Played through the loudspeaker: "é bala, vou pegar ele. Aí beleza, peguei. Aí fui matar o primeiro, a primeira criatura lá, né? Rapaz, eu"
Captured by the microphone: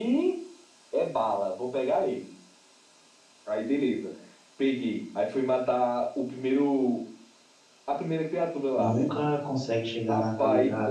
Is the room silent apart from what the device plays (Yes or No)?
No